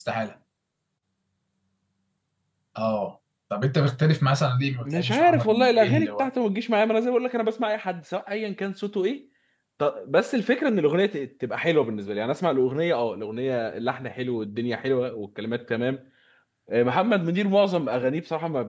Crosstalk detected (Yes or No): Yes